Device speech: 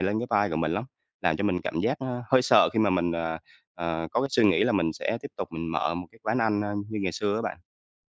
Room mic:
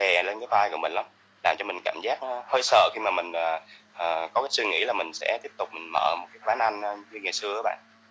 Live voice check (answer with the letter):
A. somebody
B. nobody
B